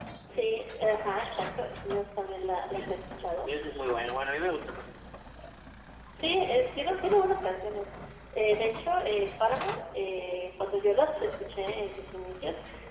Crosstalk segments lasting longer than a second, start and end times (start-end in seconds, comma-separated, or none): none